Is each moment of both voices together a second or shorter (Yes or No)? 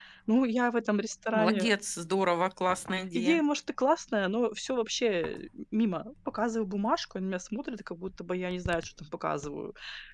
Yes